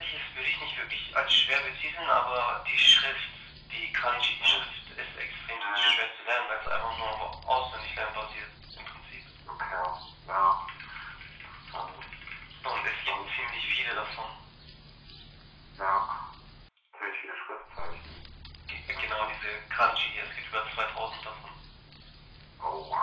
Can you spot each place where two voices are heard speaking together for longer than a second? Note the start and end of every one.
12.9-14.1

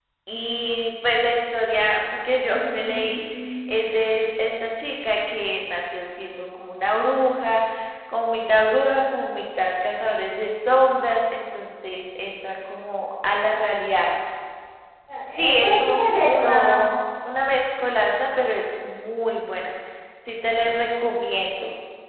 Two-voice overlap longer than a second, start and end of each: 15.5-16.8

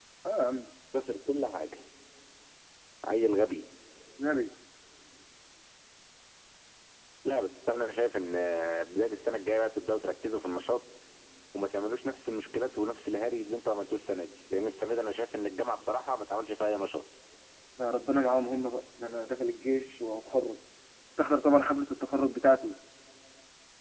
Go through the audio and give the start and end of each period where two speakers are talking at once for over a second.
none

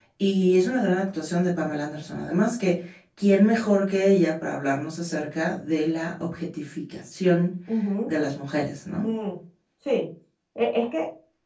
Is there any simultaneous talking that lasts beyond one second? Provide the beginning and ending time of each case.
none

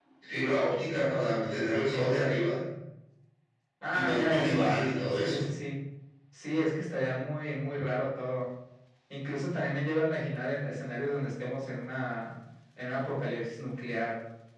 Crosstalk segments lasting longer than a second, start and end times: 3.9-5.4

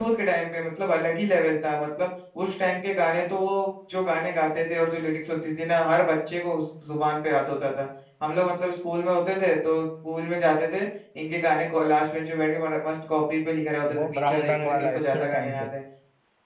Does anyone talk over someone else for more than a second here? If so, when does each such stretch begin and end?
14.0-15.6

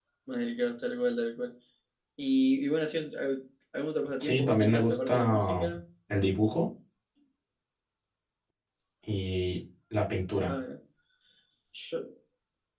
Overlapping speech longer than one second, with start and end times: 4.2-5.7

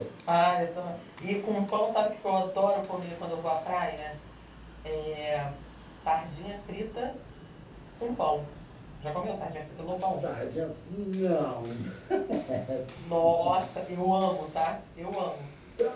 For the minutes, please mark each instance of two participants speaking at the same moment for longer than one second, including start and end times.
none

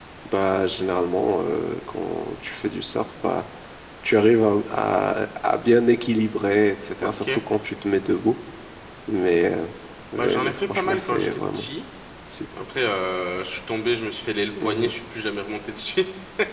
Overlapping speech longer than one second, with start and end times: 10.2-11.7

